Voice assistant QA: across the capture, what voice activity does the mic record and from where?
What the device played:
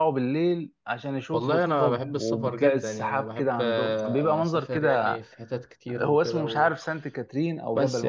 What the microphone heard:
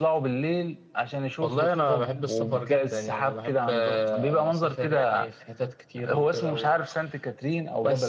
echo only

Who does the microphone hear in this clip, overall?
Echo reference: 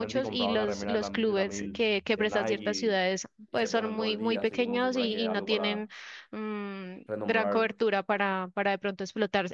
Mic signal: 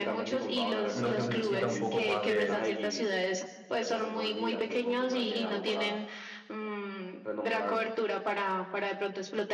both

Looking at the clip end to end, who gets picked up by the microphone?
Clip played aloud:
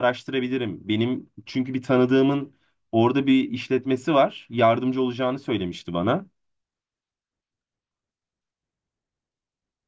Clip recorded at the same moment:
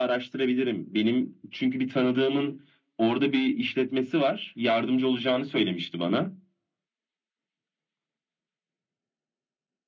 echo only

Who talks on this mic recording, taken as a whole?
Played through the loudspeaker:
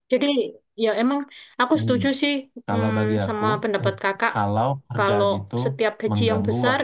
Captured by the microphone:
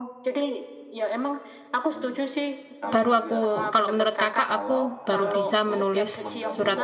both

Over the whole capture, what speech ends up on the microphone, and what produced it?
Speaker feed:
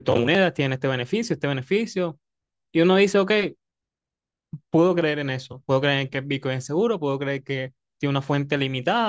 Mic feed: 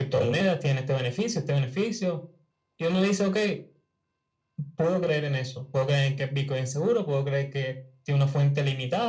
echo only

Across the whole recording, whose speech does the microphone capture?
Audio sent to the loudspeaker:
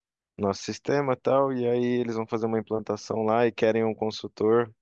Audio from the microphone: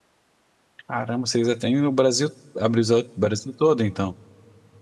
user only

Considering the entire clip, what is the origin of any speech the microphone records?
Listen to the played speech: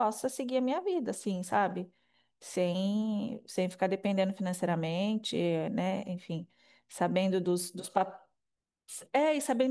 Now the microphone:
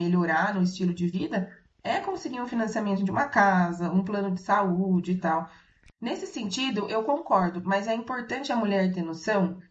user only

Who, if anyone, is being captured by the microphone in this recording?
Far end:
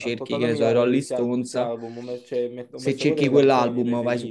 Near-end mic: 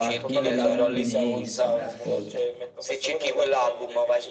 both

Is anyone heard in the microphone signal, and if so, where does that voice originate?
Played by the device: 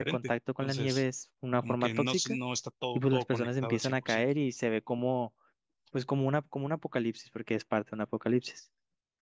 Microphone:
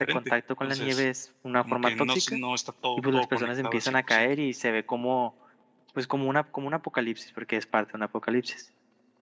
echo only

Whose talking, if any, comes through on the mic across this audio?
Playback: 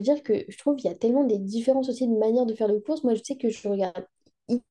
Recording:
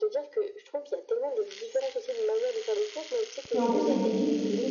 both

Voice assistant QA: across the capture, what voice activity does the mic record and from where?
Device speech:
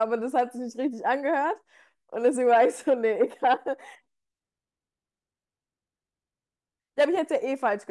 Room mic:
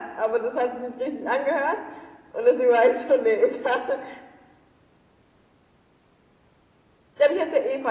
echo only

